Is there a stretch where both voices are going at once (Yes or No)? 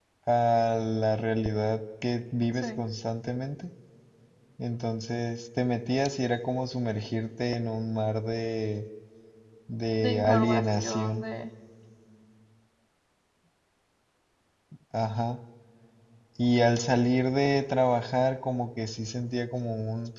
Yes